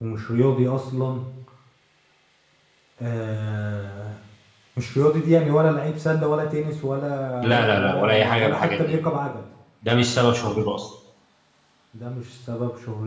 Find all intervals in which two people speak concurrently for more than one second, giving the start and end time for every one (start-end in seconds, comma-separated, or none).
7.4-8.9